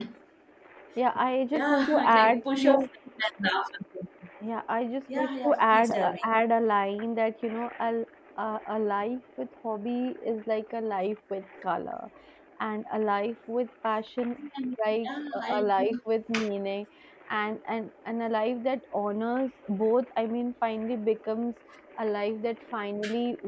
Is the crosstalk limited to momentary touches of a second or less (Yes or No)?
No